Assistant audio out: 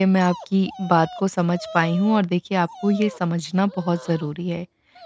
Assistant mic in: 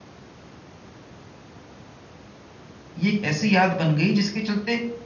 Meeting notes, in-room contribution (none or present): present